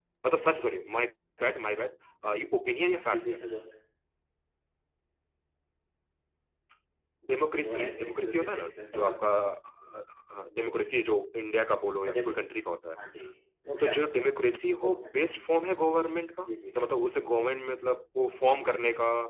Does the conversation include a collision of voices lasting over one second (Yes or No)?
Yes